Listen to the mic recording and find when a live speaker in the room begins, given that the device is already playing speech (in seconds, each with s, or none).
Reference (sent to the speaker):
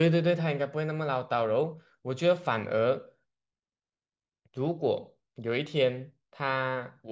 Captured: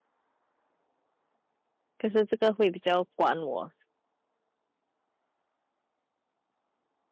2.0 s